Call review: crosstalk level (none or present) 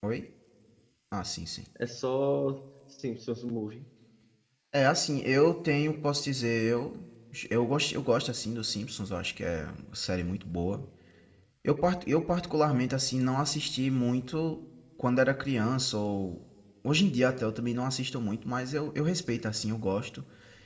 none